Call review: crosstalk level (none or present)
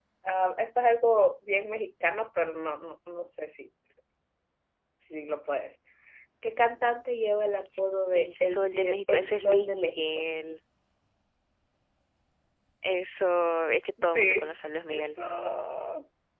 present